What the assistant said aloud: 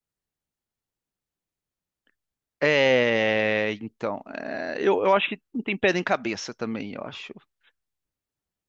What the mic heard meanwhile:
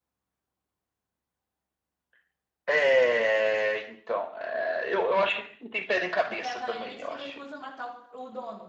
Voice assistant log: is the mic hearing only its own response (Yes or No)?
No